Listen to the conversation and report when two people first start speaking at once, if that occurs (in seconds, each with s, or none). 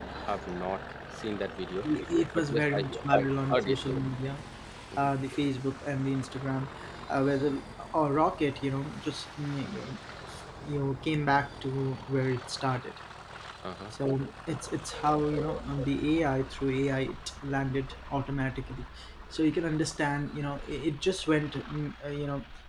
2.4 s